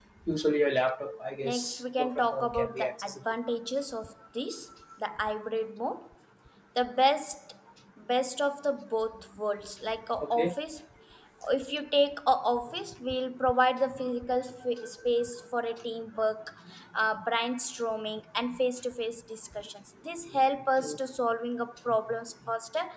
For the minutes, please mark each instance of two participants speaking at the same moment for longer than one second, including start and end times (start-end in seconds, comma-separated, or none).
1.4-3.2